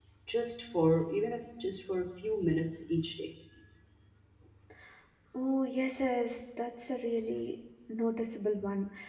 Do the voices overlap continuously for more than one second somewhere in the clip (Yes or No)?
No